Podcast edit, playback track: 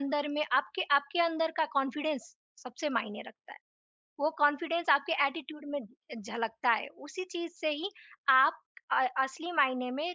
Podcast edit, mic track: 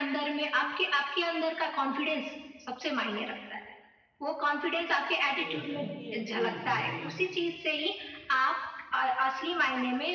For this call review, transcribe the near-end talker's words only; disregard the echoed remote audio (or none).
तो कोई ऐसा नहीं है कोई मेल